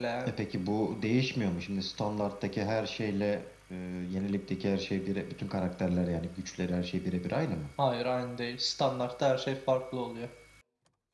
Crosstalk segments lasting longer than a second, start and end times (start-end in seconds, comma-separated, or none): none